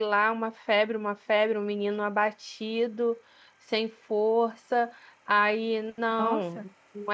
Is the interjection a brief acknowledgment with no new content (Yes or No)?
Yes